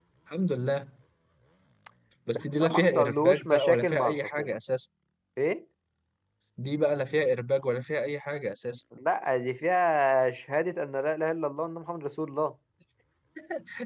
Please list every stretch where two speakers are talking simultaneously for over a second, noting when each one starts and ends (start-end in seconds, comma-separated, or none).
2.4-4.5